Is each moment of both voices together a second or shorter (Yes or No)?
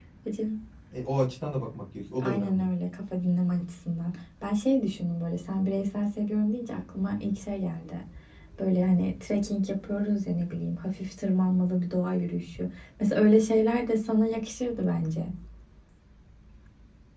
Yes